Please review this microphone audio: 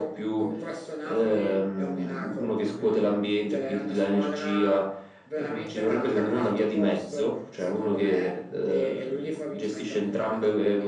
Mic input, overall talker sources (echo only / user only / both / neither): echo only